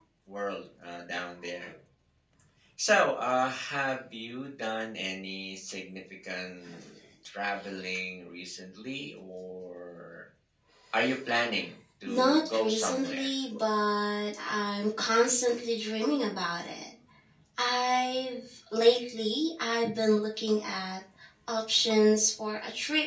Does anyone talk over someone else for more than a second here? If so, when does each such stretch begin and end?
12.1-13.3

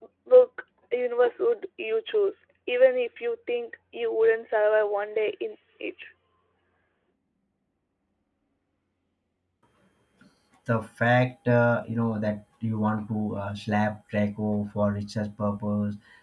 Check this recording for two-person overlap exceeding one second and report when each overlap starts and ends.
none

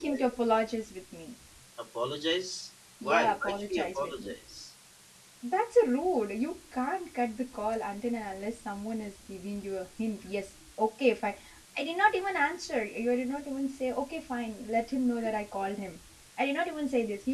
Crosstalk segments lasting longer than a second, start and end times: 3.0-4.3

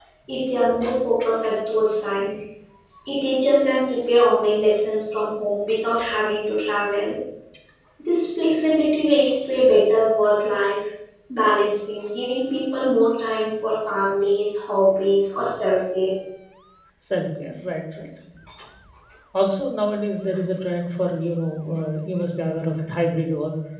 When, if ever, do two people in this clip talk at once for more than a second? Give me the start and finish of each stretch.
none

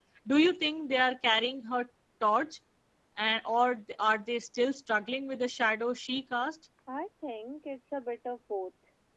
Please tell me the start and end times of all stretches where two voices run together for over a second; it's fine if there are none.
none

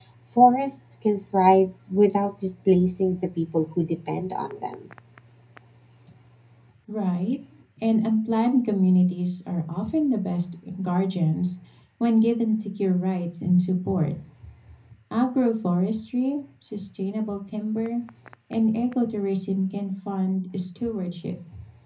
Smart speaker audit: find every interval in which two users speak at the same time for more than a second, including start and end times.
none

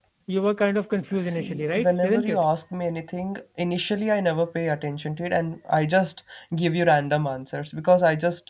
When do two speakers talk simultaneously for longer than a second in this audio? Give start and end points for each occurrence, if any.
1.2-2.4

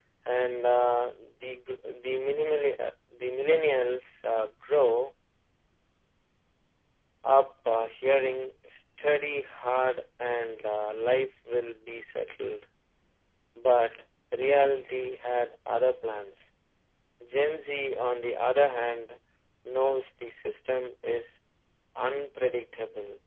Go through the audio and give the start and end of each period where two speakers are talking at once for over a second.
none

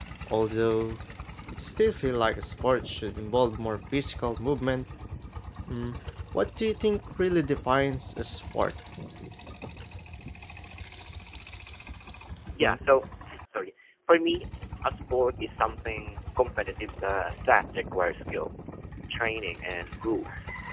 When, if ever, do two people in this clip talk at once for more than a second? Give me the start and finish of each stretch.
none

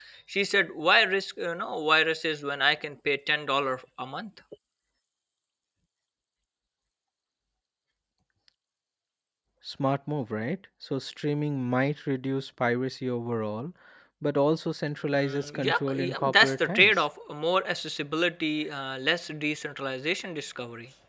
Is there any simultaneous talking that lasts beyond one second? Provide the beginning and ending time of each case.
15.2-17.0

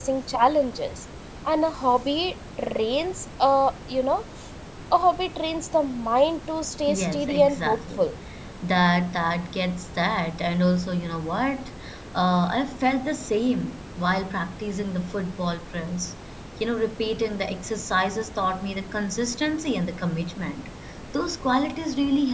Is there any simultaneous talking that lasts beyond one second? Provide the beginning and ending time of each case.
6.9-8.1

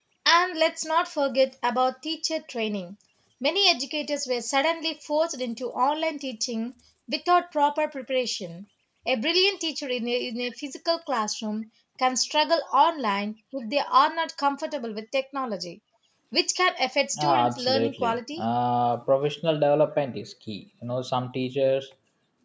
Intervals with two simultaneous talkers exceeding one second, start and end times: 17.2-18.4

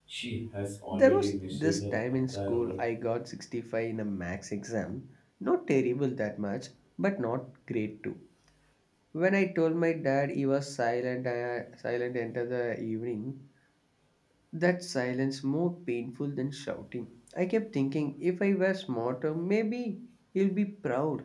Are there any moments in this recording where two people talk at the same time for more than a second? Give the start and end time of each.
0.9-2.8

